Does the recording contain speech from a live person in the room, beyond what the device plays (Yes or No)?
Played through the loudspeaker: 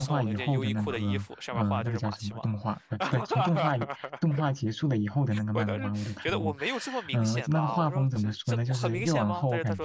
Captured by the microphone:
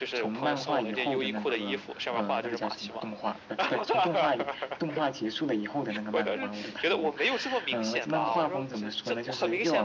No